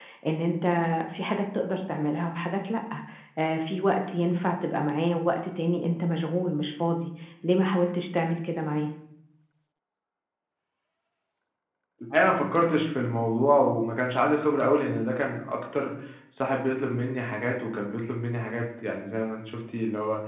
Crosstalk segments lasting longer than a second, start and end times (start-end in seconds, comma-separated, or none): none